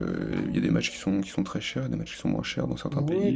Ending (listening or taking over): taking over